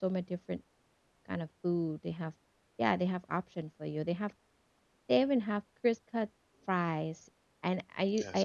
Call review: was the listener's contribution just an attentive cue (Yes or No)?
Yes